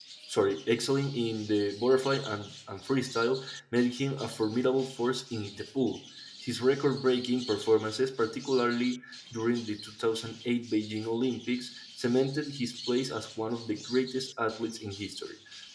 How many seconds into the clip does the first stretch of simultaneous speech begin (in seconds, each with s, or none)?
none